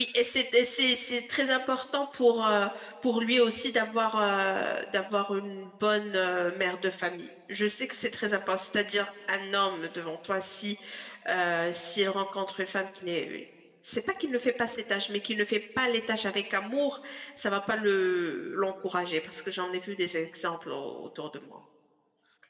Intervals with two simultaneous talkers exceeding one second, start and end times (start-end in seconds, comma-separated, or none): none